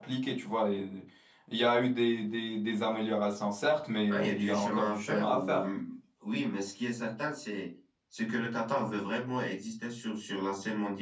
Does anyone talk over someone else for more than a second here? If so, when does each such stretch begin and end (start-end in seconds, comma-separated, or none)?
4.1-5.6